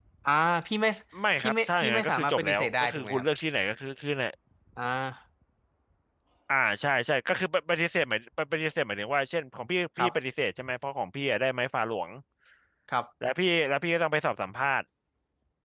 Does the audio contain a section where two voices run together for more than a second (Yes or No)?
Yes